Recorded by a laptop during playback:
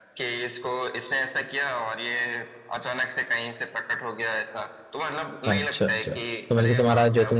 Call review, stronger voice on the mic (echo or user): user